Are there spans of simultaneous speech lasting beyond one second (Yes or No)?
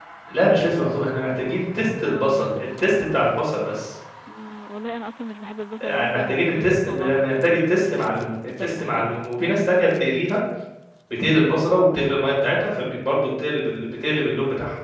Yes